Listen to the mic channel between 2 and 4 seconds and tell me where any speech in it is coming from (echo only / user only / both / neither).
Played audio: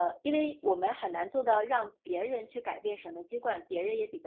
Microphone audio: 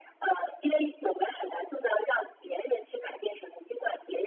echo only